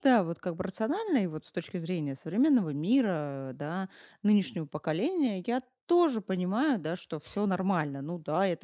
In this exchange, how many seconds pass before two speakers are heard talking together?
none

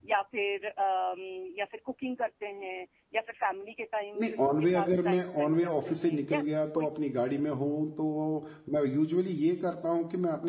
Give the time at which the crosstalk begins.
4.2 s

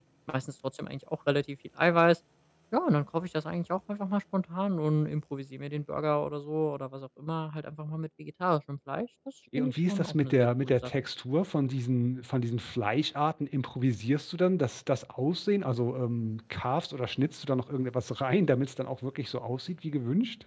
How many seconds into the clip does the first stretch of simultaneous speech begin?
9.5 s

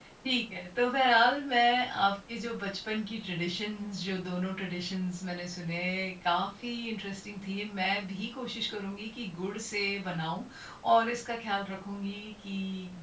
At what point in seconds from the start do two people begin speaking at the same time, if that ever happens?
none

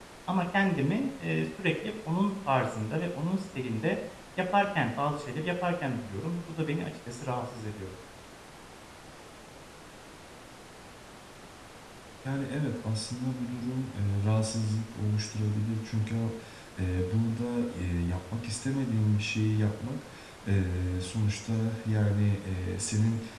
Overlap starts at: none

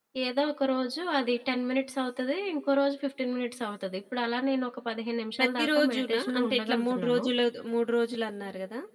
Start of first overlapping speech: 5.4 s

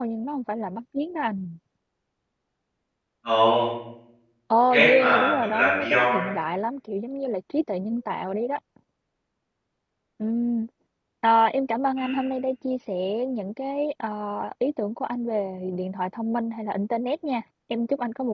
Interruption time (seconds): 4.7 s

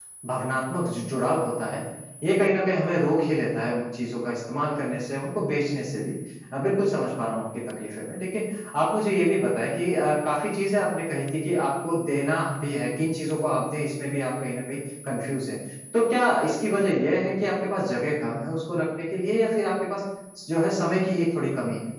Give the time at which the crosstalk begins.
none

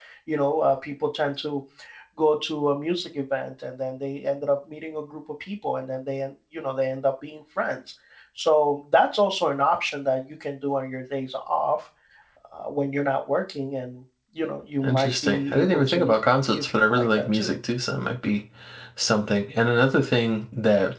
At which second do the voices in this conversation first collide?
14.8 s

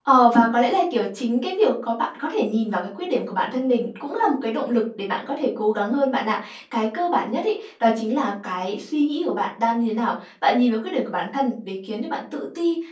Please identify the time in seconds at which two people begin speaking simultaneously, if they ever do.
none

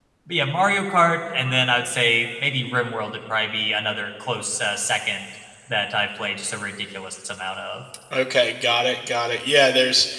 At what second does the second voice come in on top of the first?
none

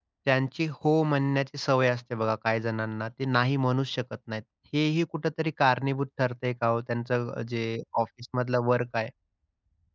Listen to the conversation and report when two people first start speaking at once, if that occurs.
none

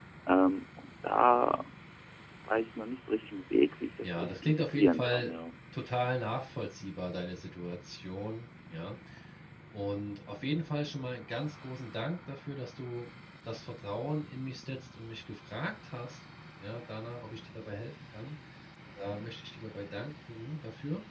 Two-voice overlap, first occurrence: 4.0 s

